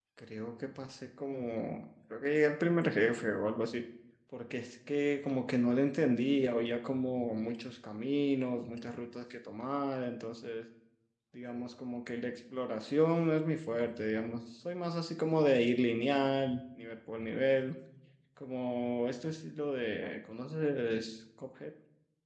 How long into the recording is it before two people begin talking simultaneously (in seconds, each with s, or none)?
none